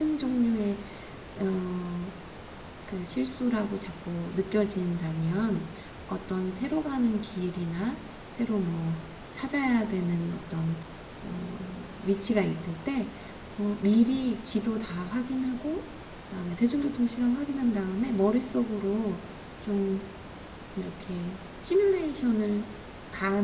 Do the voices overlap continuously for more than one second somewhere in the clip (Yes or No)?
No